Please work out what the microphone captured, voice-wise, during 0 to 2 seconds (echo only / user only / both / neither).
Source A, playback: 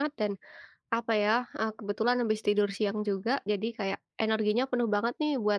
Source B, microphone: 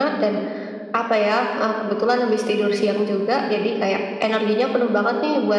echo only